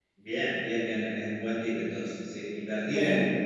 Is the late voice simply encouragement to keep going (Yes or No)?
Yes